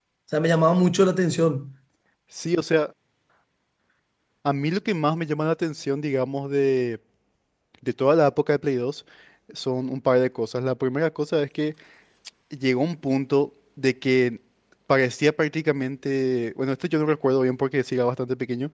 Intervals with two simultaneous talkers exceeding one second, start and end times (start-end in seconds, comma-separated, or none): none